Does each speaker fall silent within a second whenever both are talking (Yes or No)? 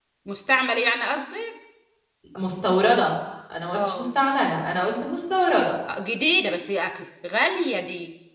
Yes